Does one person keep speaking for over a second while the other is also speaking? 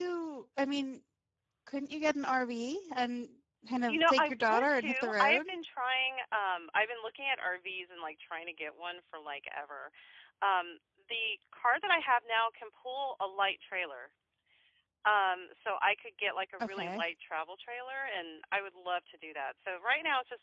Yes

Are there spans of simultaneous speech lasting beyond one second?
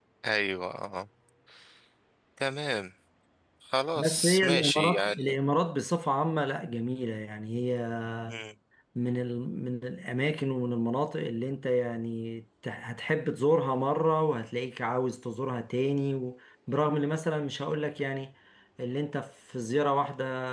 Yes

